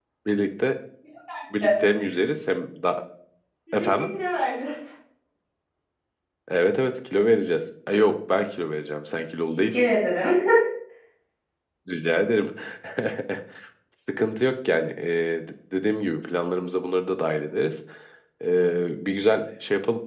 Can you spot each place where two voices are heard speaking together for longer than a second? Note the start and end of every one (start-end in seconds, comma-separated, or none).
none